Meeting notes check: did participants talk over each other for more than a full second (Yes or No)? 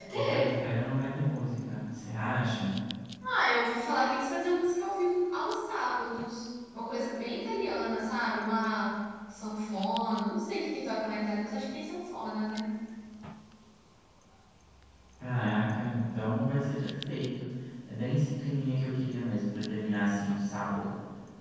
No